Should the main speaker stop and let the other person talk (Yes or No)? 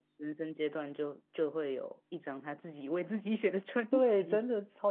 Yes